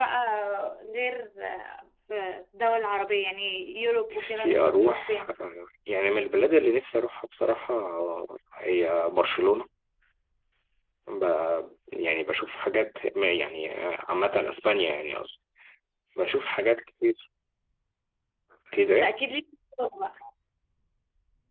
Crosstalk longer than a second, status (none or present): present